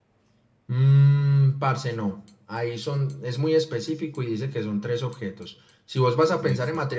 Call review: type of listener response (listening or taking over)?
listening